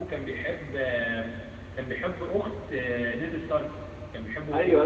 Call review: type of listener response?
taking over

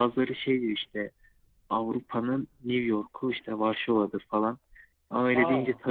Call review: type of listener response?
listening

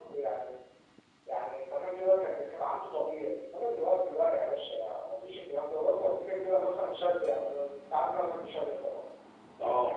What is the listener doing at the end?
listening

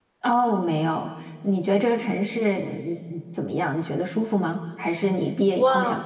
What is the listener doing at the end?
taking over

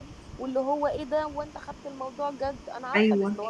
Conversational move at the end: taking over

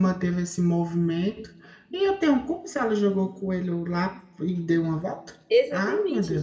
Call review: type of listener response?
taking over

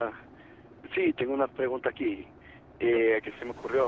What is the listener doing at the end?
listening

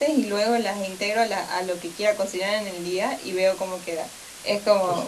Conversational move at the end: listening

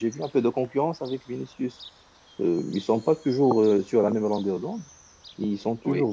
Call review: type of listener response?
listening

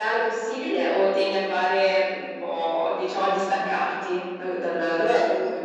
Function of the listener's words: taking over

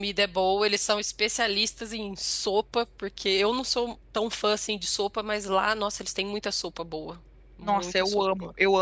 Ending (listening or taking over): taking over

